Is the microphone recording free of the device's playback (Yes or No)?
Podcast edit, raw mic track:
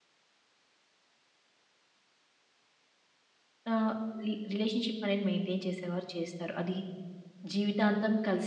Yes